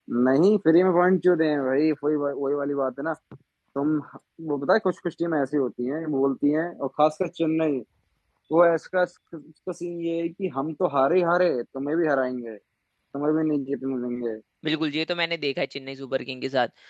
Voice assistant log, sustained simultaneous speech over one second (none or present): none